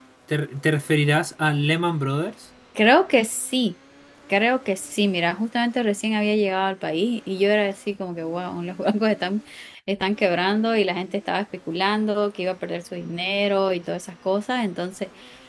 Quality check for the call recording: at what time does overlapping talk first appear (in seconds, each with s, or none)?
none